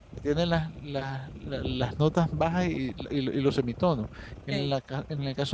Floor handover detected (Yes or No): No